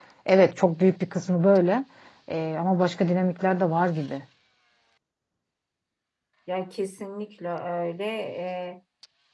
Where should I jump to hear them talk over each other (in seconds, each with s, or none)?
none